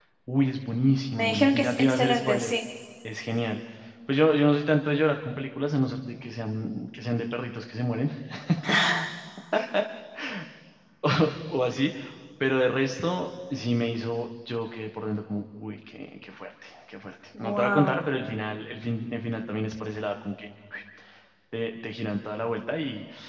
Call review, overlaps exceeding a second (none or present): present